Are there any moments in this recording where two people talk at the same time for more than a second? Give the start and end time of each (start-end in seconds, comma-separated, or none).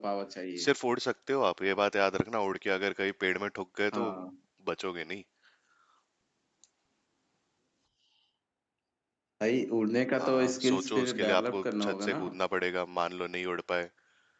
10.2-12.2